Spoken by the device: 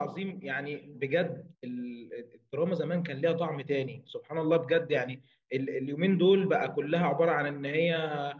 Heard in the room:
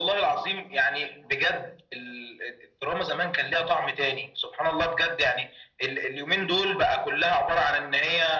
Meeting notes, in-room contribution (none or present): none